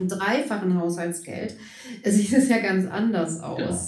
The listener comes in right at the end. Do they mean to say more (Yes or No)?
Yes